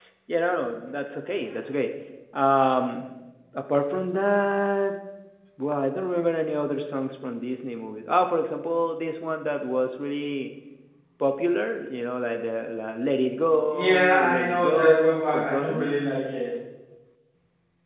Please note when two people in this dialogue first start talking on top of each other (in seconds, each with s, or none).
13.7 s